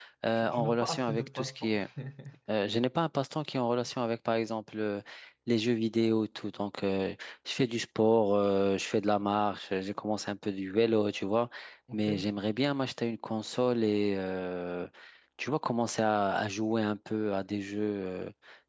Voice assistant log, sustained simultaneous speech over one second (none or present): present